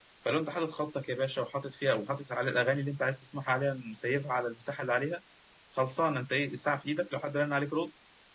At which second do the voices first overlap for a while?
none

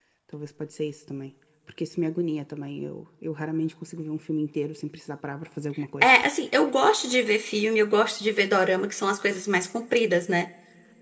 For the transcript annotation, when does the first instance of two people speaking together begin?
none

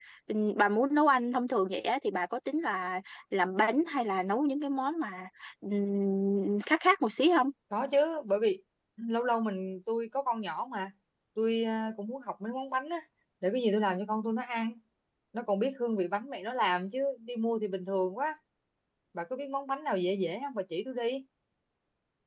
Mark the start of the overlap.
none

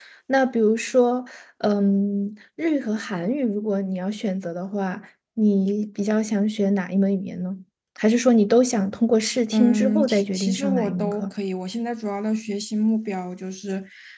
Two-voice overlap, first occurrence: 10 s

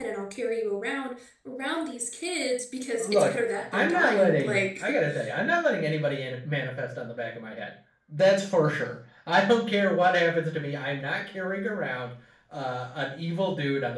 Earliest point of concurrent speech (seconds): 3 s

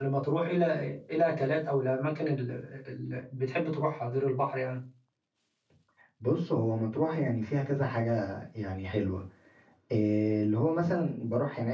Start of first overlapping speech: none

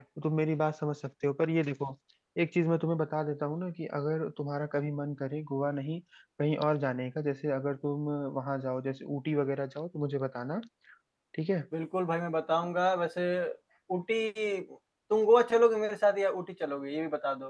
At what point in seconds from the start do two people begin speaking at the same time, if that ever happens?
none

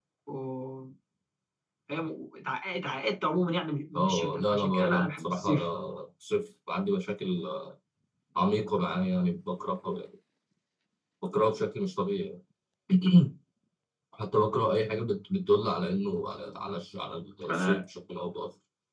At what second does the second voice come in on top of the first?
4 s

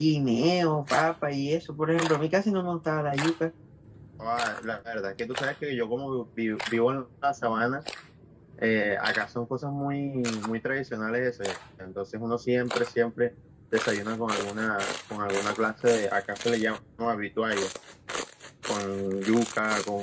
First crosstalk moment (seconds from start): none

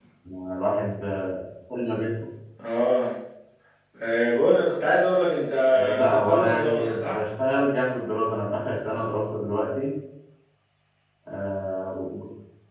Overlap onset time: 6 s

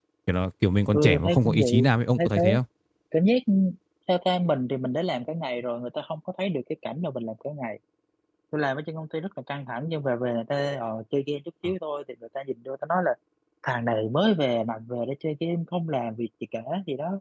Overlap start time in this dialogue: 1 s

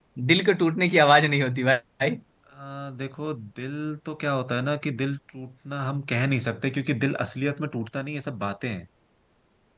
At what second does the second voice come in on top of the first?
none

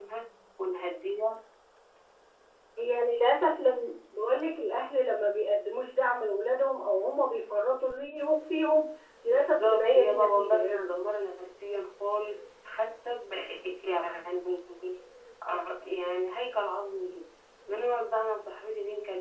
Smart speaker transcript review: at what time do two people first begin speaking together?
9 s

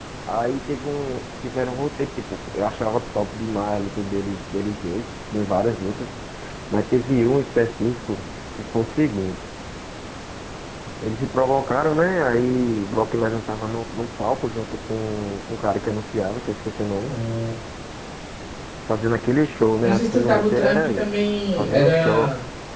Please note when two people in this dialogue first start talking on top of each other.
20 s

